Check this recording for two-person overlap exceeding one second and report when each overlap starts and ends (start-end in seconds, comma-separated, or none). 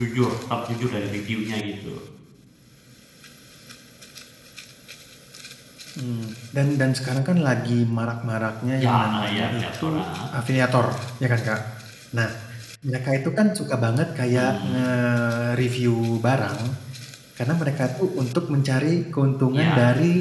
8.8-10.0